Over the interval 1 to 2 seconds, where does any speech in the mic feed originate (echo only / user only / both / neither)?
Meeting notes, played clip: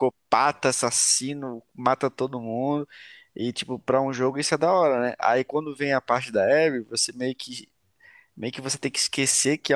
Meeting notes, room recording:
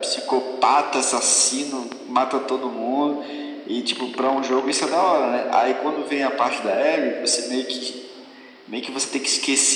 echo only